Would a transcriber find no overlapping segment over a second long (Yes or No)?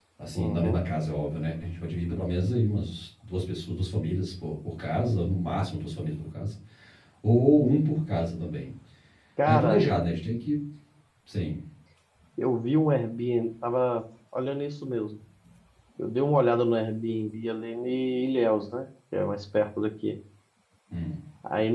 Yes